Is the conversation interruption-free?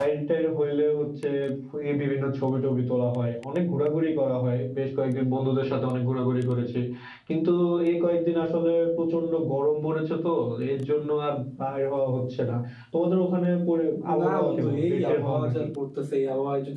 No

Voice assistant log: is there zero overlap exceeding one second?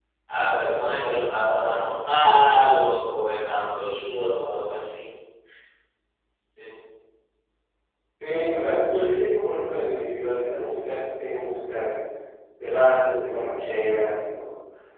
Yes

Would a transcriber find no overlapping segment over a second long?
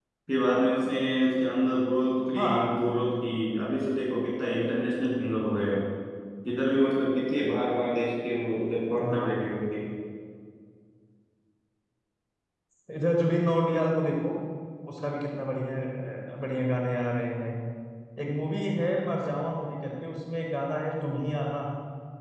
Yes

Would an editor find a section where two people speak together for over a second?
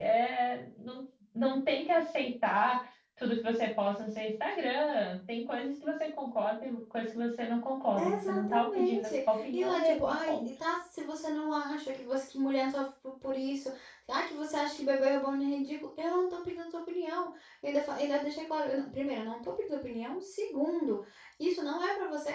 Yes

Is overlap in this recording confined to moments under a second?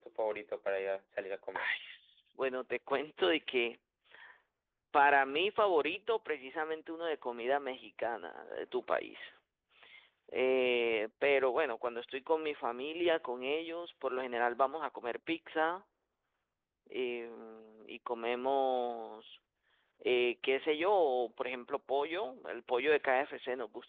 Yes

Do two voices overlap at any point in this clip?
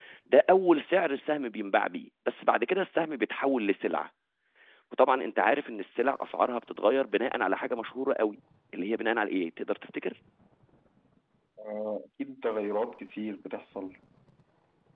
No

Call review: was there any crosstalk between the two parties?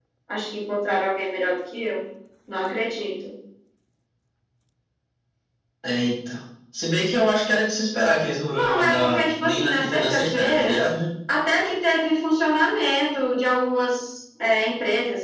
Yes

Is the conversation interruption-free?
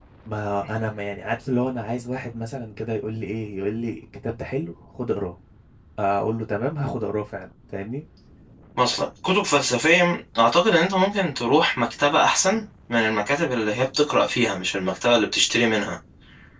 Yes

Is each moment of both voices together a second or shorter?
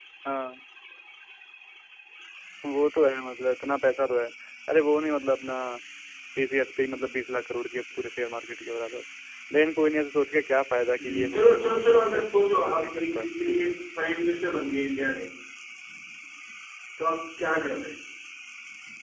No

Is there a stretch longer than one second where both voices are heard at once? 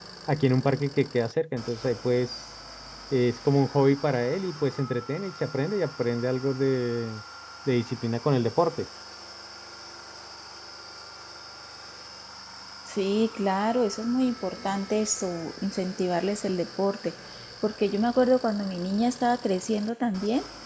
No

